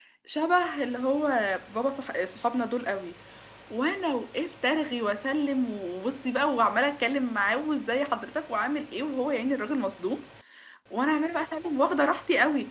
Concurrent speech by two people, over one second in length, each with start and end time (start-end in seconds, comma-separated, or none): none